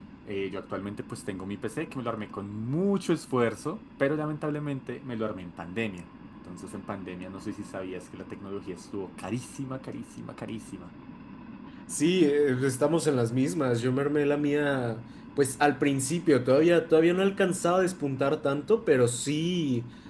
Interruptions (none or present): none